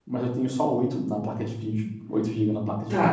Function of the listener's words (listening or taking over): taking over